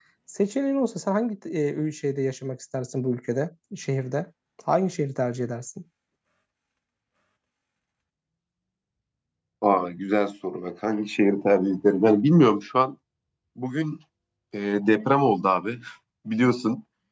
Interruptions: none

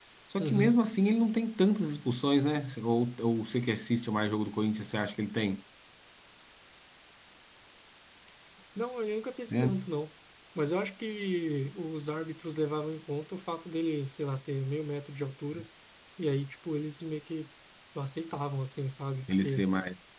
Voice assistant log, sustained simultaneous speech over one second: none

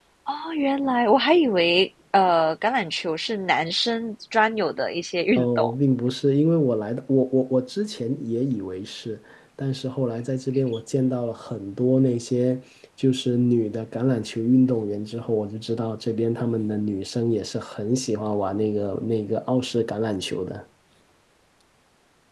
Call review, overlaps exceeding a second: none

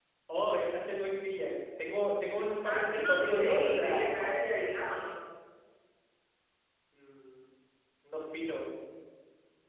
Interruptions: present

